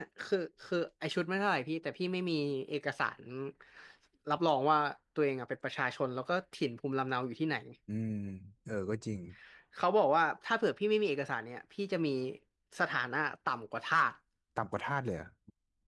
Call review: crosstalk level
none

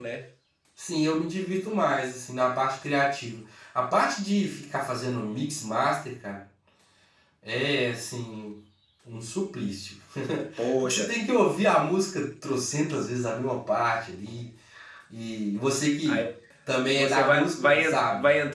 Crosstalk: present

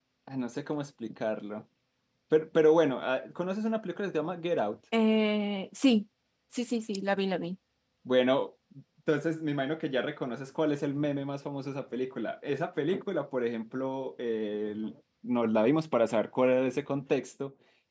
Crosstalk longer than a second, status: none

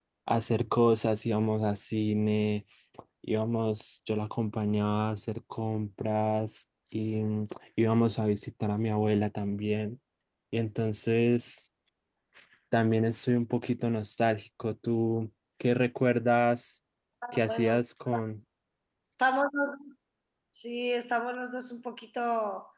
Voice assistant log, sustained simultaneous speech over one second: none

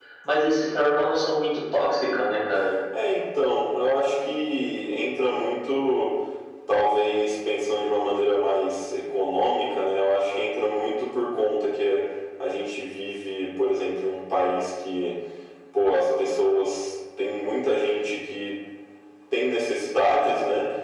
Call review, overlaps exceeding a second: none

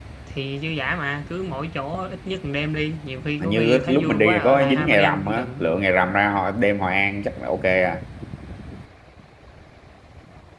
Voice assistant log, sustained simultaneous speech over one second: present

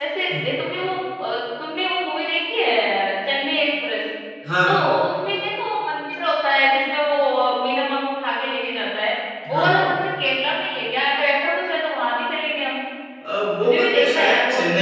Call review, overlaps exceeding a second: present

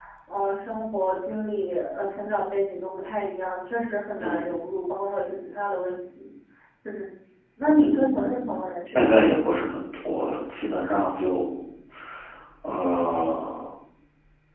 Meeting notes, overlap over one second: present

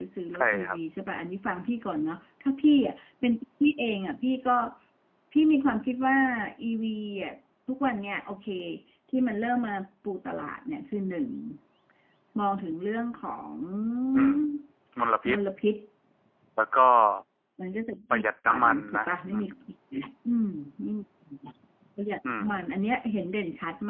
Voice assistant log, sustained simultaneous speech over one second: present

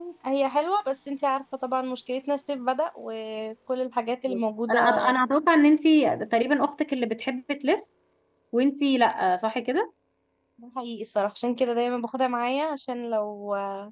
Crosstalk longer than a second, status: none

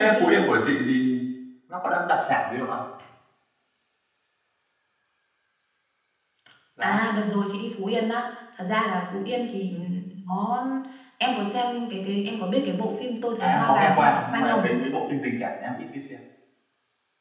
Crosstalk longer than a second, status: present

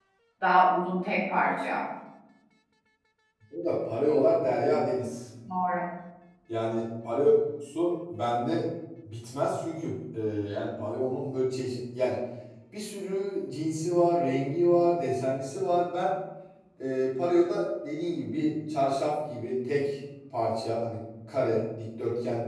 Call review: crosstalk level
none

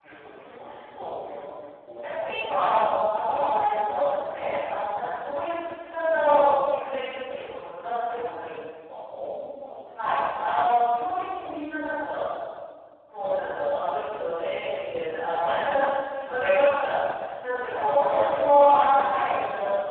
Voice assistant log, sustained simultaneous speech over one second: present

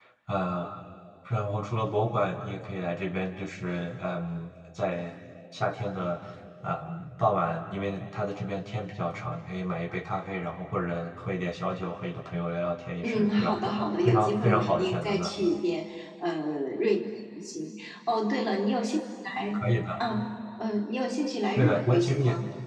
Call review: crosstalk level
present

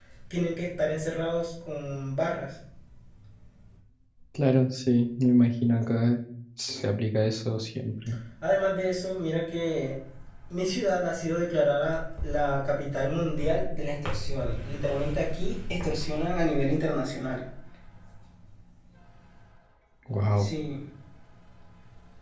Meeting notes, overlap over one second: none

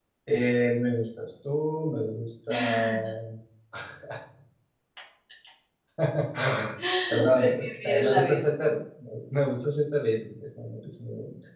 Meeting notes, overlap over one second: present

